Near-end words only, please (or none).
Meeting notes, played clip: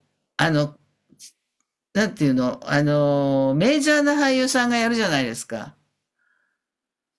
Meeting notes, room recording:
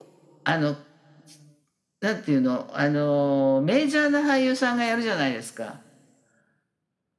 none